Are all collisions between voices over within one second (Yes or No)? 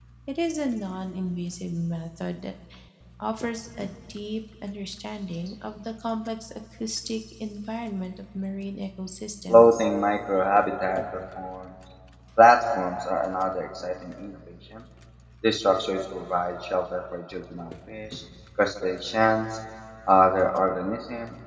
Yes